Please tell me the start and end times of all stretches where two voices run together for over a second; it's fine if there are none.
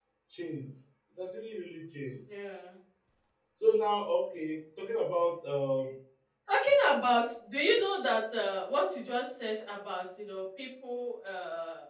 none

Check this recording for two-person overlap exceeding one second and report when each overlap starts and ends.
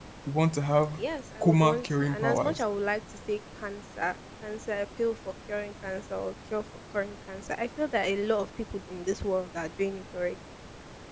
1.4-2.6

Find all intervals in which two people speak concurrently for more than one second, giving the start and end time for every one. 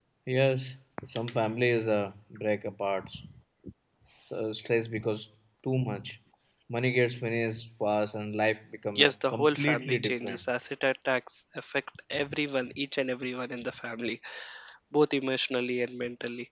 8.9-10.4

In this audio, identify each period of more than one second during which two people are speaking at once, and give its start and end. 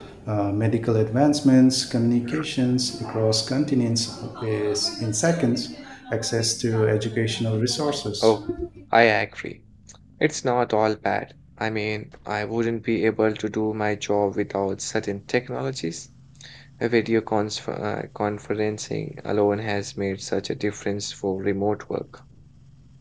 none

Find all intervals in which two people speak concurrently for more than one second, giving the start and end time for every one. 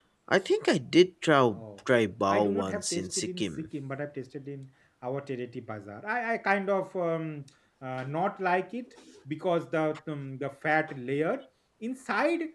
2.3-3.7

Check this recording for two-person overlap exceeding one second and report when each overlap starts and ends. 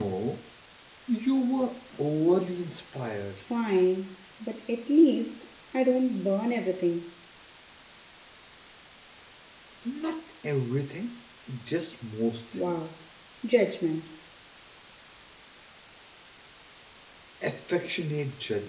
none

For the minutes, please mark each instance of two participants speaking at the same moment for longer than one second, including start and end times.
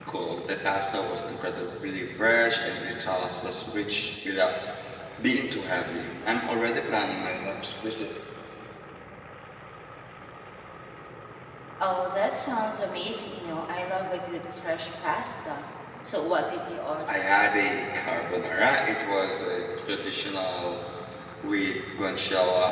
none

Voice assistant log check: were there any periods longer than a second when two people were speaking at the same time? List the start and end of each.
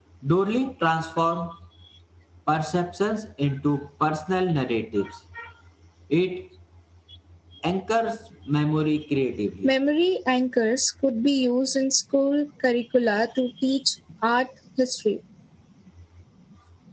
none

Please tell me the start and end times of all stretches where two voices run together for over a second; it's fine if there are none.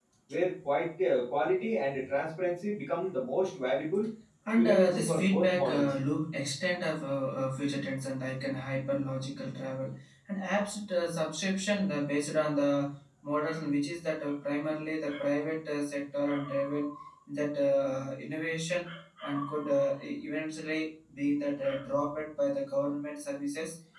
4.5-5.9

